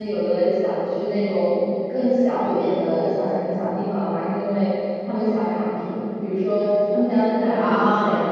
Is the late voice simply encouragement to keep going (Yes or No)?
Yes